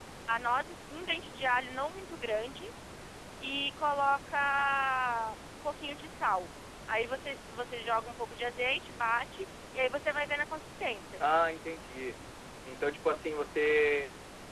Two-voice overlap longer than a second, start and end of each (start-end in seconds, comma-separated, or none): none